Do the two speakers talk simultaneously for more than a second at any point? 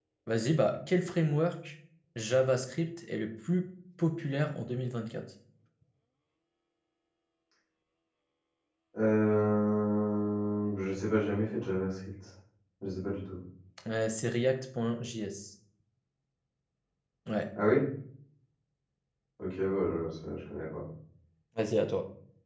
No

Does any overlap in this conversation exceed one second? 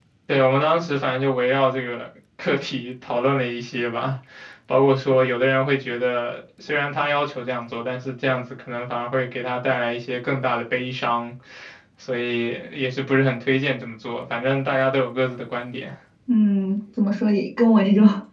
No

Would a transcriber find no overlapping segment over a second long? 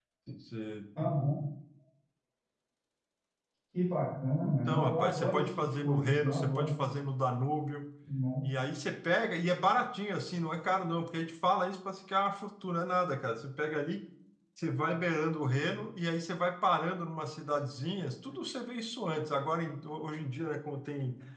No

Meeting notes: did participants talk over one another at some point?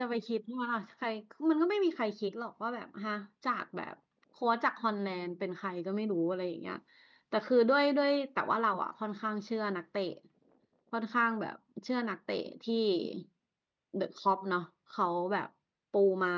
No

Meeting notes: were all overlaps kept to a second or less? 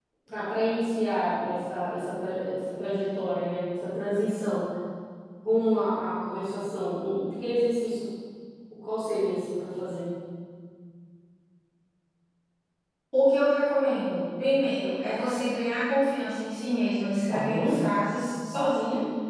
Yes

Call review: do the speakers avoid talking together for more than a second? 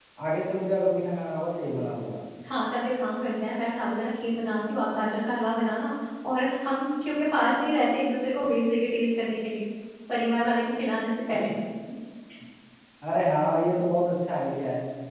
Yes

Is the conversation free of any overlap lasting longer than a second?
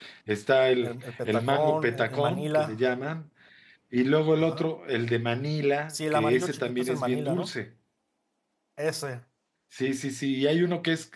No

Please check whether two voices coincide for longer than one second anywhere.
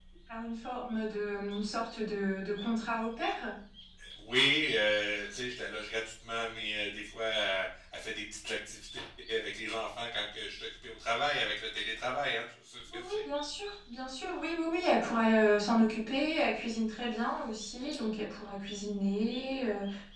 No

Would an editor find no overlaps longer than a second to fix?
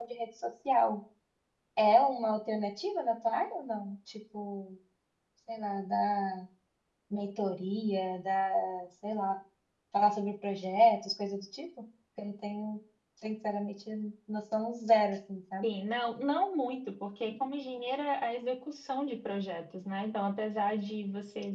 Yes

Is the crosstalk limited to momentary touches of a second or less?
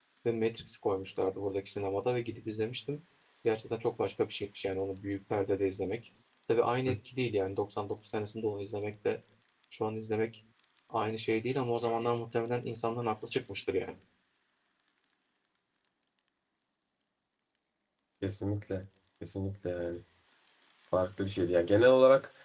Yes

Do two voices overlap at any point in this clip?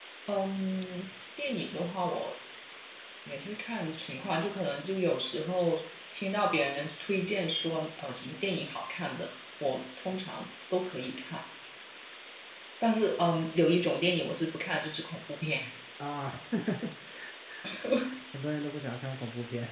No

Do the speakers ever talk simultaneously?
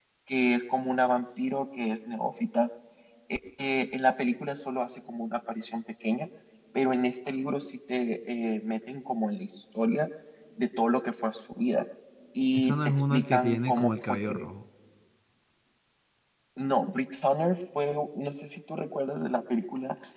Yes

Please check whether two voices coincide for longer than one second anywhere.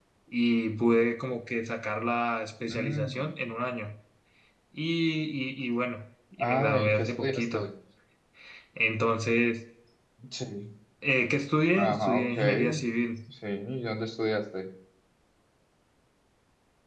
Yes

